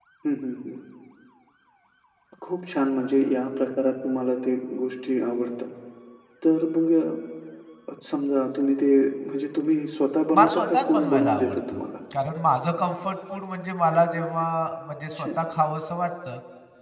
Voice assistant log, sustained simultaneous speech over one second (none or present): present